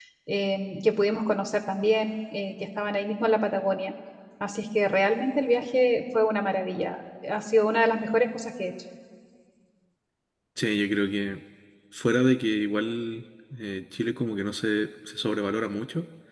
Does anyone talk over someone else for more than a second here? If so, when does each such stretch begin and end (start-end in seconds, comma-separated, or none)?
none